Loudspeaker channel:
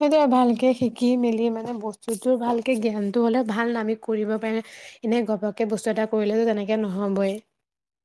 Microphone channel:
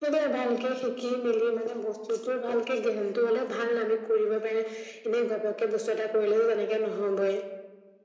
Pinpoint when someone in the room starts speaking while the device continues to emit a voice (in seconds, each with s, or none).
none